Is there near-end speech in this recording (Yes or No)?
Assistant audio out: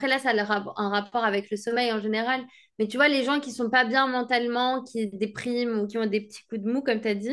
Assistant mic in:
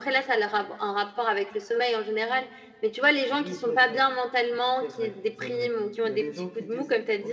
Yes